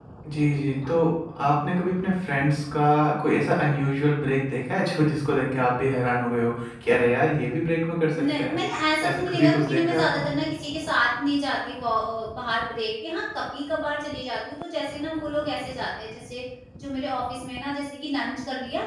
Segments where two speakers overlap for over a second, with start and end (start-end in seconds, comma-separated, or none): 9.1-10.3